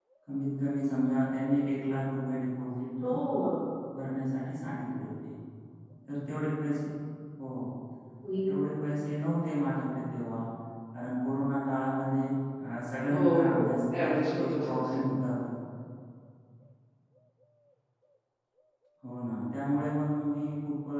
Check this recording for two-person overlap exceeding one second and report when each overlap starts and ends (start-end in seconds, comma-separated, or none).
13.1-15.1